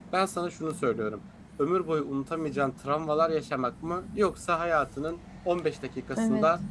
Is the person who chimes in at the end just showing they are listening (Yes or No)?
Yes